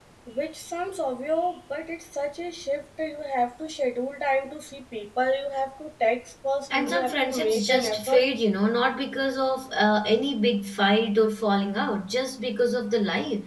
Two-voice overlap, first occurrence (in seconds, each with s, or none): 6.7 s